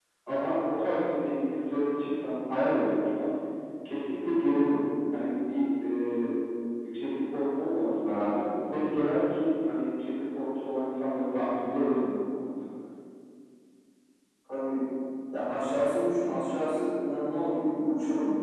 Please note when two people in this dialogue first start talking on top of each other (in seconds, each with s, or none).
none